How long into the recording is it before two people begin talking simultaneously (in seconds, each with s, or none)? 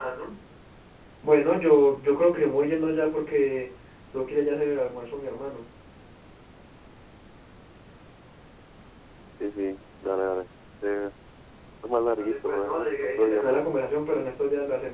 12.2 s